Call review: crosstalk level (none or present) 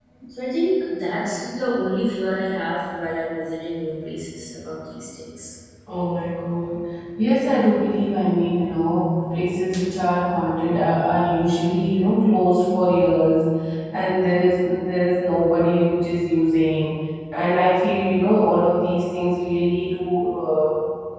none